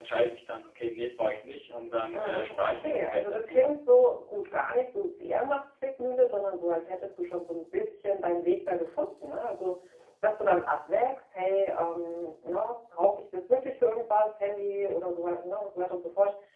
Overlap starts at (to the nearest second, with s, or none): 2 s